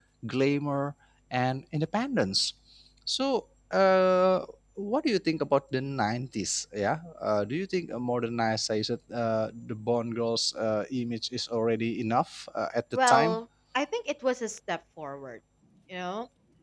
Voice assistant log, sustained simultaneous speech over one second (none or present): none